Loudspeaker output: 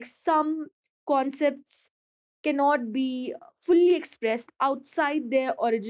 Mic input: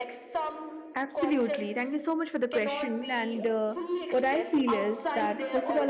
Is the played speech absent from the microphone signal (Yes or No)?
No